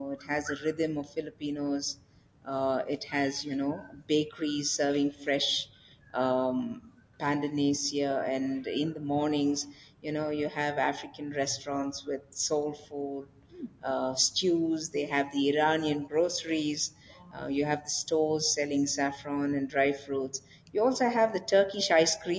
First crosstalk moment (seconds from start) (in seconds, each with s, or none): none